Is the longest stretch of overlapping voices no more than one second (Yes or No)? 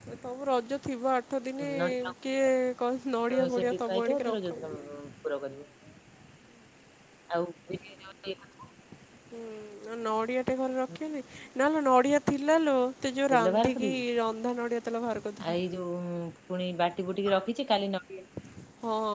No